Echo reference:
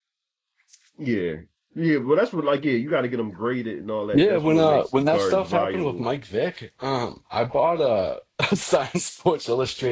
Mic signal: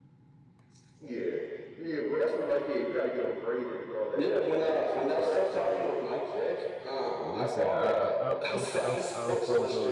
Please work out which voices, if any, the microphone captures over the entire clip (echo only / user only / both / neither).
both